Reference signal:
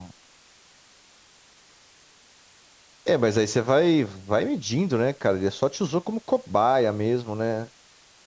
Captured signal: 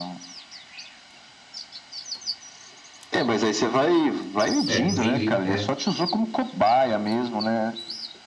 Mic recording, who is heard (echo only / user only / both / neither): both